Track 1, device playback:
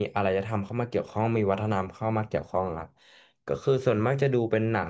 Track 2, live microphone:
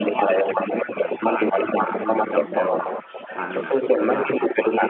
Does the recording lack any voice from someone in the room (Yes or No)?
No